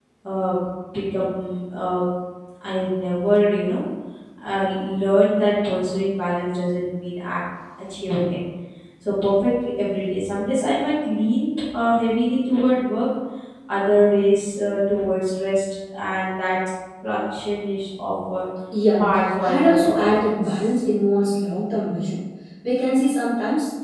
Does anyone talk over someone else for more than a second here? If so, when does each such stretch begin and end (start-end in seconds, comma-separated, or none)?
19.4-20.7